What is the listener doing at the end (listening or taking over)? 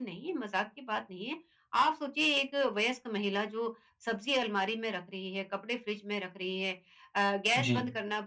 listening